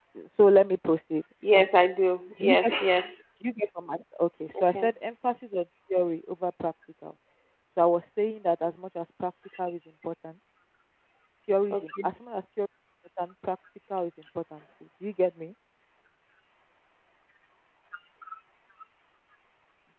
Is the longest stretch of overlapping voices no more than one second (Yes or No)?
Yes